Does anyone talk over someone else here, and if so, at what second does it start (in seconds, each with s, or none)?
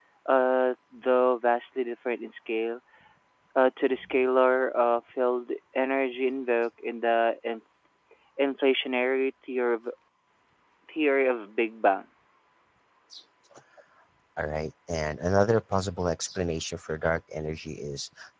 none